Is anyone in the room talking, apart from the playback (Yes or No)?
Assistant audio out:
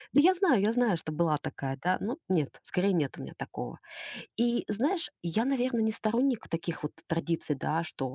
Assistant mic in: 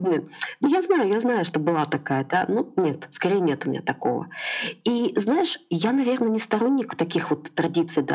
No